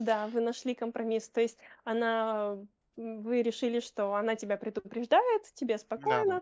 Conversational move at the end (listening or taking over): listening